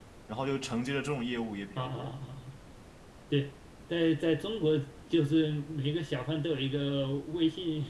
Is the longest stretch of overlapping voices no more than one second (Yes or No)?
Yes